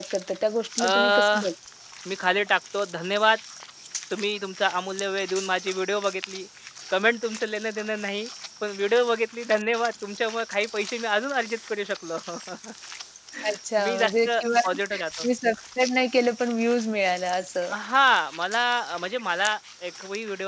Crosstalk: present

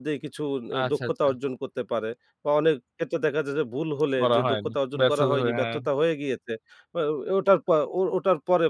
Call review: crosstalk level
present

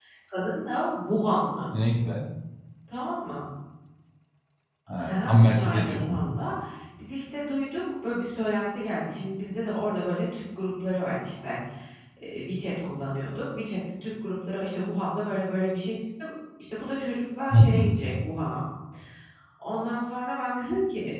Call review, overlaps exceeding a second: present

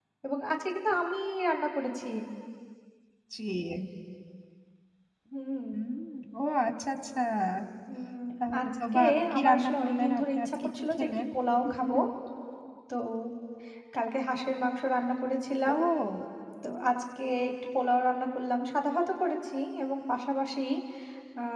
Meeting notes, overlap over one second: present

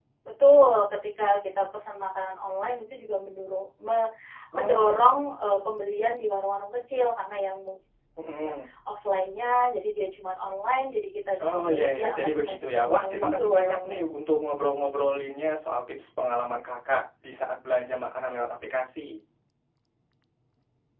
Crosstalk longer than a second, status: present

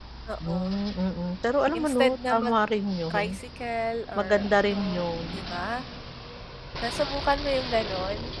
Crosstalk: present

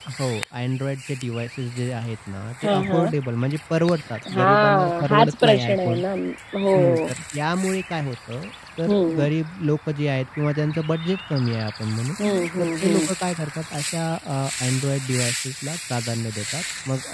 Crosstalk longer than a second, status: present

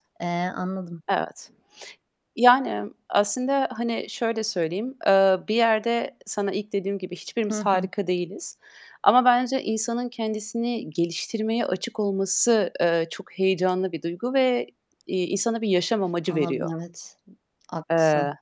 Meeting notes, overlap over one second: none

